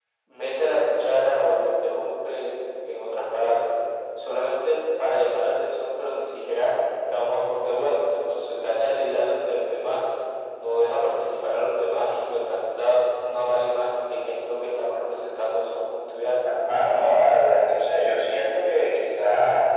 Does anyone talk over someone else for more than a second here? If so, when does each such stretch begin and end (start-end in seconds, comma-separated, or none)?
none